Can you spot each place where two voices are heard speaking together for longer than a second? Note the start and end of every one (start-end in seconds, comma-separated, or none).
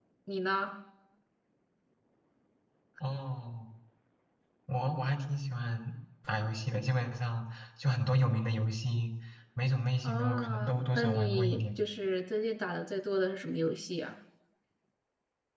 10.0-11.8